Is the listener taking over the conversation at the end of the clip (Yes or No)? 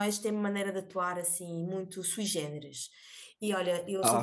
No